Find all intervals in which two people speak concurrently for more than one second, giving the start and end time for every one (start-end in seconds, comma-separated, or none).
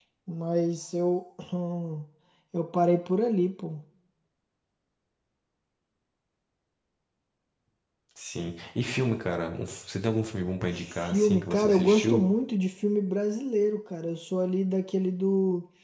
10.7-12.2